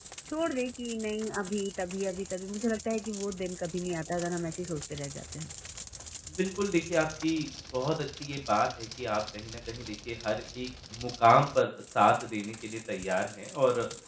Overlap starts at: none

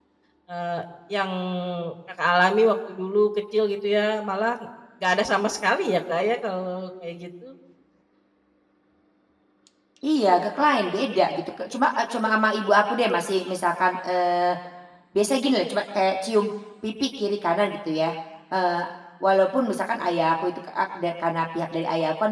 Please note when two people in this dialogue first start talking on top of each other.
none

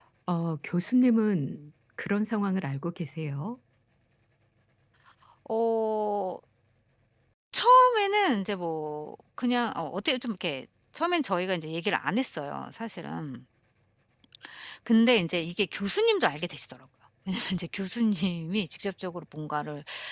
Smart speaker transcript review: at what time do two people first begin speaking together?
none

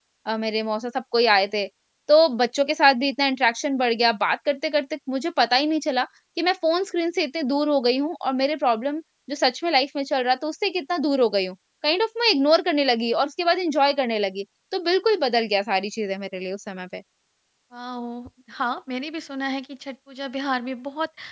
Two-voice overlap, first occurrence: none

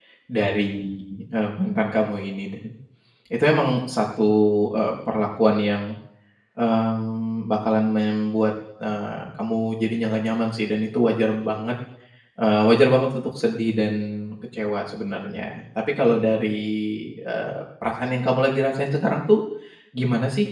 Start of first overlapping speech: none

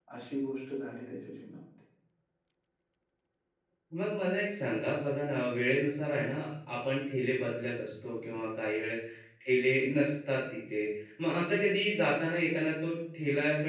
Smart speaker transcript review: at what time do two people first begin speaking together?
none

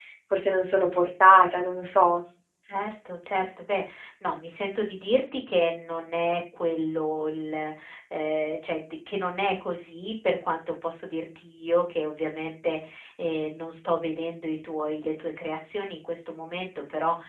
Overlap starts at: none

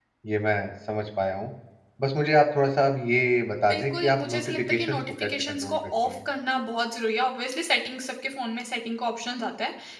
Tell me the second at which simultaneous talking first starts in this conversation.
4 s

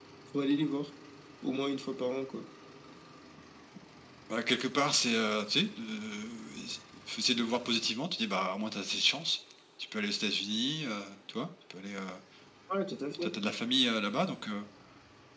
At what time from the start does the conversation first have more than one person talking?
none

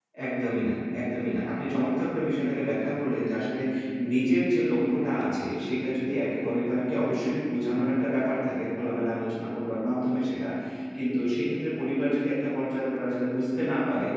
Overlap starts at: none

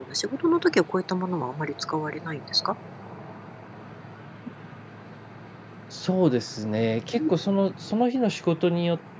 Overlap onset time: none

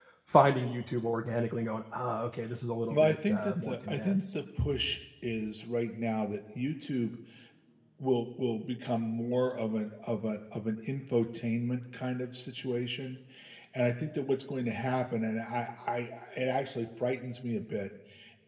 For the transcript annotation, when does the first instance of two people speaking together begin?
3 s

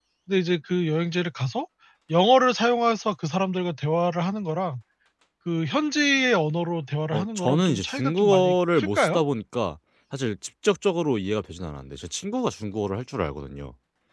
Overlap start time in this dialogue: 7 s

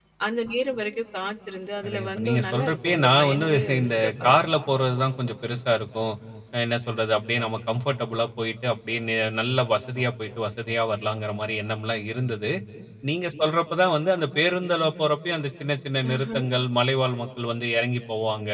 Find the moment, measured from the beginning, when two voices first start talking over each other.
2 s

